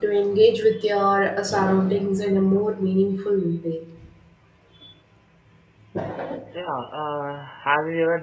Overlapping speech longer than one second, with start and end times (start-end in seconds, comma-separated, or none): none